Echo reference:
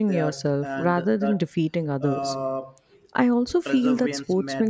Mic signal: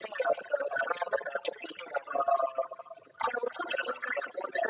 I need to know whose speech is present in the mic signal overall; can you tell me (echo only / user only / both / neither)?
echo only